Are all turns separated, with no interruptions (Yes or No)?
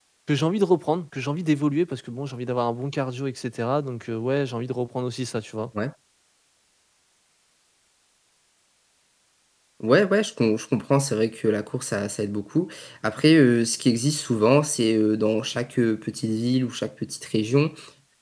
Yes